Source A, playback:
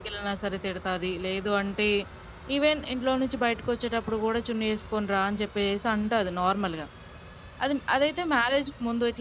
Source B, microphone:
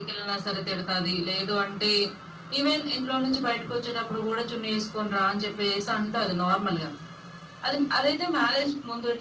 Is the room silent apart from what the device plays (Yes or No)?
Yes